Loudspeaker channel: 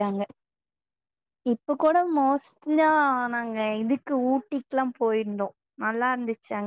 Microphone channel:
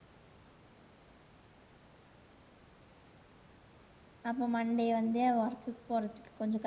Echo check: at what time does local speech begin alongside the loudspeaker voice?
4.3 s

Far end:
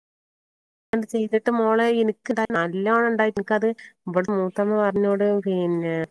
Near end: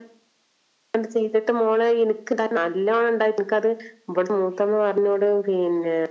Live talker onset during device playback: none

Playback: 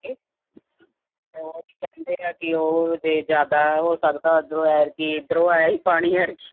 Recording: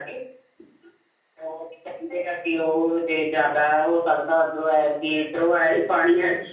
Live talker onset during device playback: none

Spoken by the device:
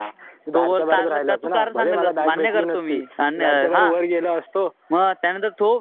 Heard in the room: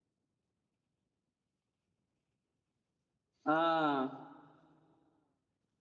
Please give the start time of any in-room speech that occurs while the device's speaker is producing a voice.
3.5 s

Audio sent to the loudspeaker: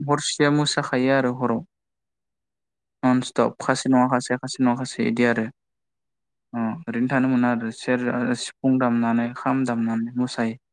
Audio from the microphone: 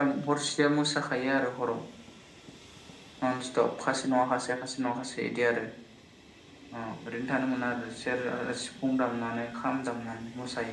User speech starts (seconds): none

